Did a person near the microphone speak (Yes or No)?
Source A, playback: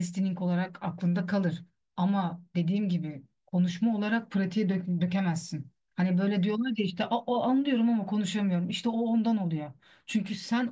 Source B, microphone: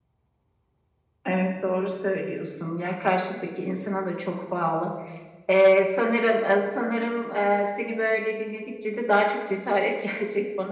Yes